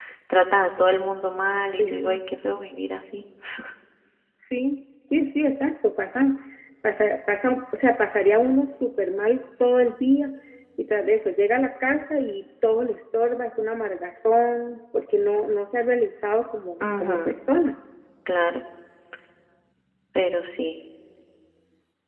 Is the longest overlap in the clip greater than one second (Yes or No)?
No